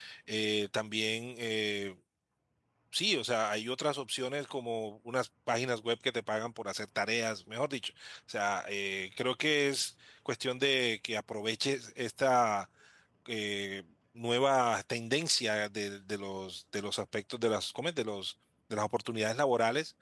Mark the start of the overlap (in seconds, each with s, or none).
none